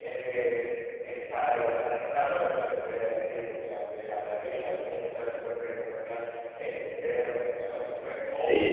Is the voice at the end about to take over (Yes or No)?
No